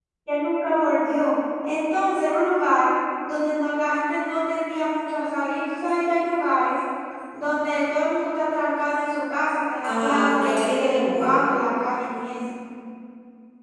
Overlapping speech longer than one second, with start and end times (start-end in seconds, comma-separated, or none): 9.8-11.5